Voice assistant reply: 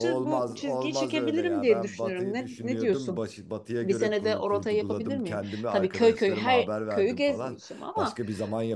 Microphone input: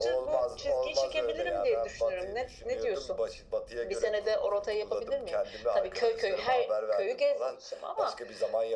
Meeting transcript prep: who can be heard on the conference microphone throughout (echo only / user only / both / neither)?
echo only